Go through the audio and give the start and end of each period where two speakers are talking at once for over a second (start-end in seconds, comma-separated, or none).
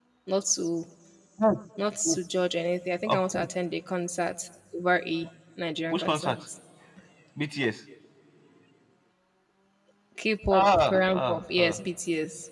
10.5-11.8